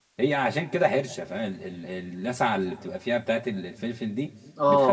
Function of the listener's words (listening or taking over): taking over